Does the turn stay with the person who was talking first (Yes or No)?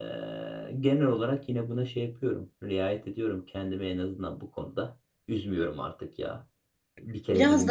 No